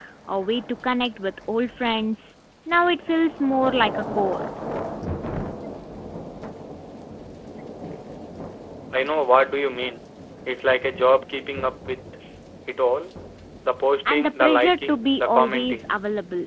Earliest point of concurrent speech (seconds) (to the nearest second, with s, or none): 14 s